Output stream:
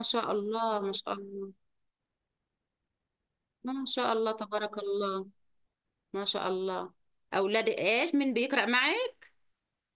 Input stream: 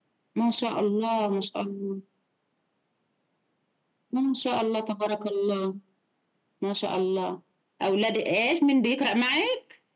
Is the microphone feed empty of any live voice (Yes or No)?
Yes